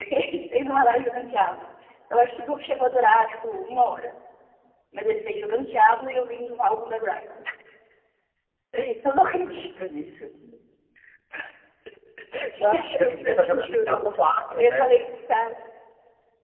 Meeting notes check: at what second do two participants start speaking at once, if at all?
12.7 s

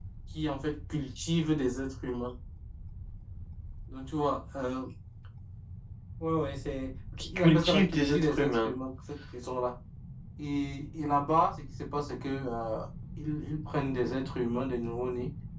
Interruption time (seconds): 7.2 s

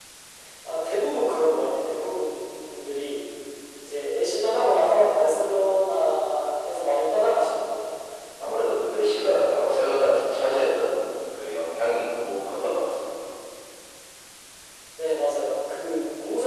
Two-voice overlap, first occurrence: none

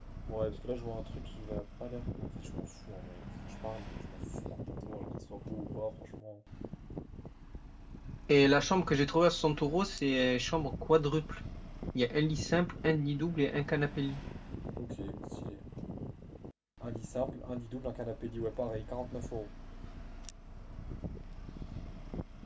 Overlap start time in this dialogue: none

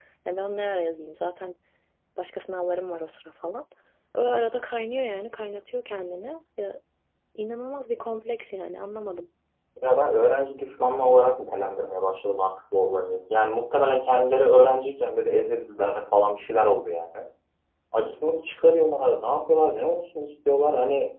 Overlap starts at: none

